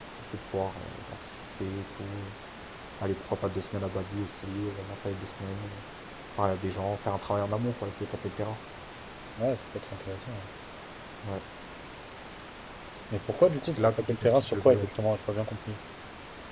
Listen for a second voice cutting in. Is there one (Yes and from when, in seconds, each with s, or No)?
Yes, from 13.6 s